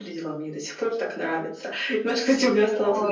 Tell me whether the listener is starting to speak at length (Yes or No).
No